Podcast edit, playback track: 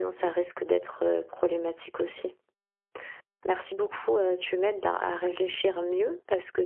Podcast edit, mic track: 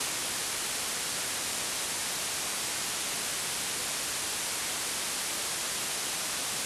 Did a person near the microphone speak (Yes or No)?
No